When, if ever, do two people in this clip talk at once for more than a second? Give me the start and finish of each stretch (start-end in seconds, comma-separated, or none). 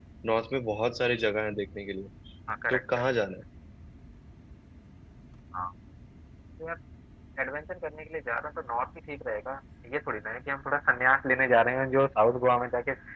none